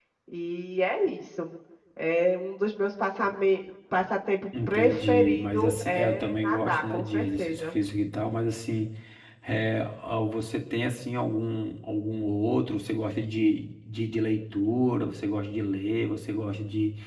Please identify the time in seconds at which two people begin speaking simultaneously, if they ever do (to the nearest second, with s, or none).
5 s